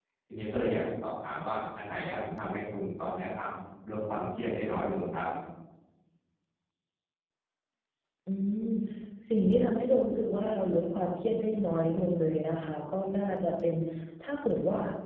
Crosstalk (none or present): none